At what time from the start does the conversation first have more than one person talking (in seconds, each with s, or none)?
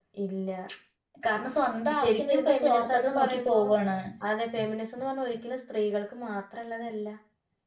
2.0 s